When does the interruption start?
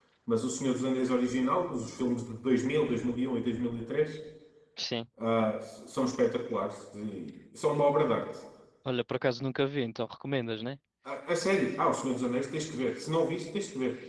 none

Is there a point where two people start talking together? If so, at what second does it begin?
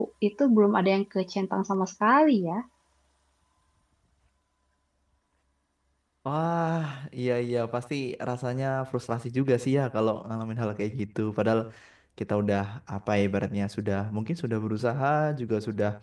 none

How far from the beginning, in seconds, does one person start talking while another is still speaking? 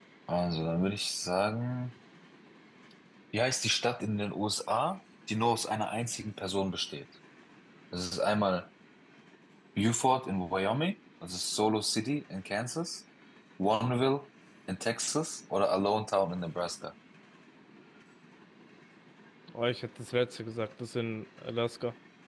none

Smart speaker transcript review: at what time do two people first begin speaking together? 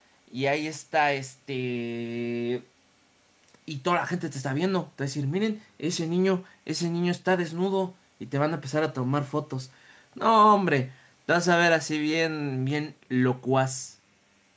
none

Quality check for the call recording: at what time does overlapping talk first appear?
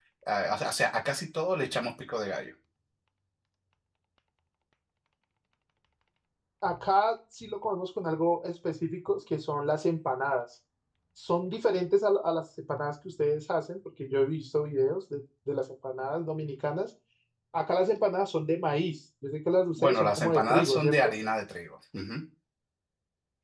19.8 s

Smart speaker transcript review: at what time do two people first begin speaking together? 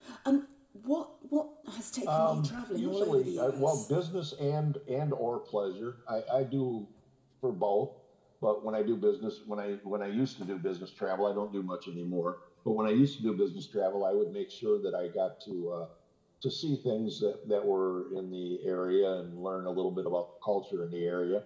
2.1 s

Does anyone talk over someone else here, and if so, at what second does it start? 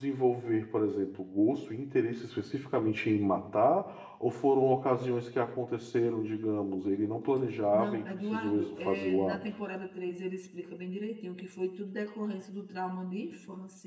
7.7 s

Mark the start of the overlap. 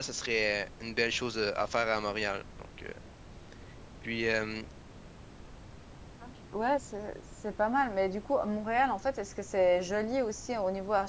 none

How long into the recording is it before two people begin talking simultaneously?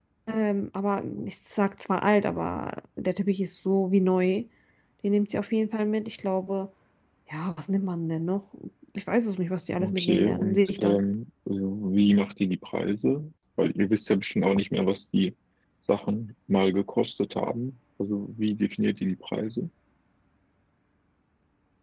9.8 s

